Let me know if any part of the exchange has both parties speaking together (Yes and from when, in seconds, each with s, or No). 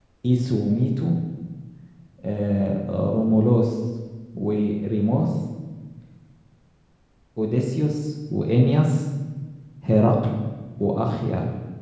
No